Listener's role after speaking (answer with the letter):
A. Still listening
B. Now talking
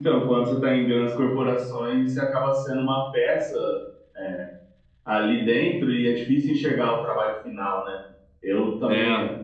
A